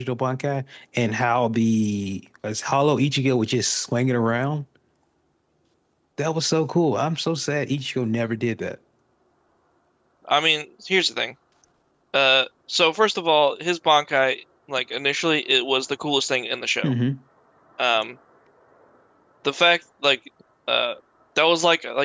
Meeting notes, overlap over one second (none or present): none